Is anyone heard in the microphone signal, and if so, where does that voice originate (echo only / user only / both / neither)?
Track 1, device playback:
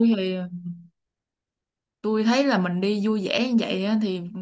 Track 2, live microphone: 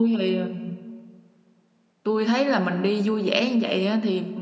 echo only